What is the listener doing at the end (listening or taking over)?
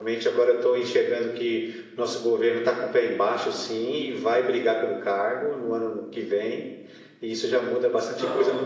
listening